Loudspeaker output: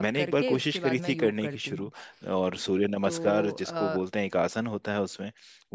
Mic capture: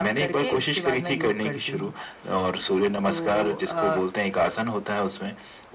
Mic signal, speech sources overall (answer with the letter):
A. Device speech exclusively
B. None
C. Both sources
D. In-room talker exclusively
A